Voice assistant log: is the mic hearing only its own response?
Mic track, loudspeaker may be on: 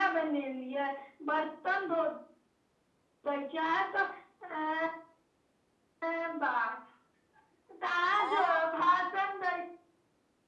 No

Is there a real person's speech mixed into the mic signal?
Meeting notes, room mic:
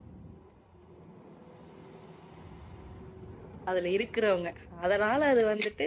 Yes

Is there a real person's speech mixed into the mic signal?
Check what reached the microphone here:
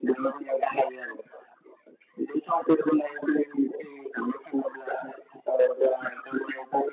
No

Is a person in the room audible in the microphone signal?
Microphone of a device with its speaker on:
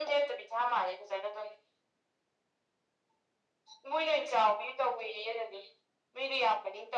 No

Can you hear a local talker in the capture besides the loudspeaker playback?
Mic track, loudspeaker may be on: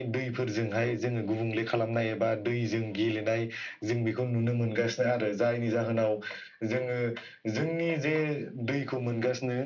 No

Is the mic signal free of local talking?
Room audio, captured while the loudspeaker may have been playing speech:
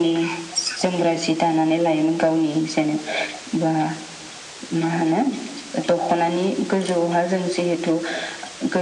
Yes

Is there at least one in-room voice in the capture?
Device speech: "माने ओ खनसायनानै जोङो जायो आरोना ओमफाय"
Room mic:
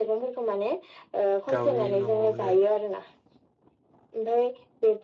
Yes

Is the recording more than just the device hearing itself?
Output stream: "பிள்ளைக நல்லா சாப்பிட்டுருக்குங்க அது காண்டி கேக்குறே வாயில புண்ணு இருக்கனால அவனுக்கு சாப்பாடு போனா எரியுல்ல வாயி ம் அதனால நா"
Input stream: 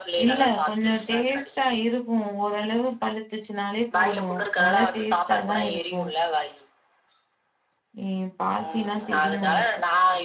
Yes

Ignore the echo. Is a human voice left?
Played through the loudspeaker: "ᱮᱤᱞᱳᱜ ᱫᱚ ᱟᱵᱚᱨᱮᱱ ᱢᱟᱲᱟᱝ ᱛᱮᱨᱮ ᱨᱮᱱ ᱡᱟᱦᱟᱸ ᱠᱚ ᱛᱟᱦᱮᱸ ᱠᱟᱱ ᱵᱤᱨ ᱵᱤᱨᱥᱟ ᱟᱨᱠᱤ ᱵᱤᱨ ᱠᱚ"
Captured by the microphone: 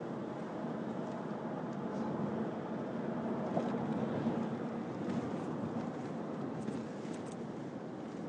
No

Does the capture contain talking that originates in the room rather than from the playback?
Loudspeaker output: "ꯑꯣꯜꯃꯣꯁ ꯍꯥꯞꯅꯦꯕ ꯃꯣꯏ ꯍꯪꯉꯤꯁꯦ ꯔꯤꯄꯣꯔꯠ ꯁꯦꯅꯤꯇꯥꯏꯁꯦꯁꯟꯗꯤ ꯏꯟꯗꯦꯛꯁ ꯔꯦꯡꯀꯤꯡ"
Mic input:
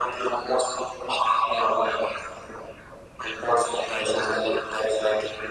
No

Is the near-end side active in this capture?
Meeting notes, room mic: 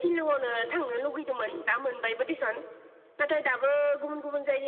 No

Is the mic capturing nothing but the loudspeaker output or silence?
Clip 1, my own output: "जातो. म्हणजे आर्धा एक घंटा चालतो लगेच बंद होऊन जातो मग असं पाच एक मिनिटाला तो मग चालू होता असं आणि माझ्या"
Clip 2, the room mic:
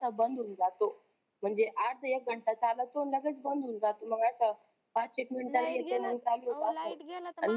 No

